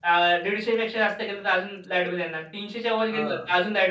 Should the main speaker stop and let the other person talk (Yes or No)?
No